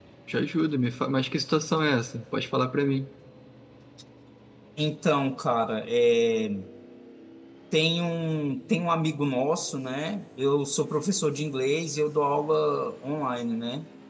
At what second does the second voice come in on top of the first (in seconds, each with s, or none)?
none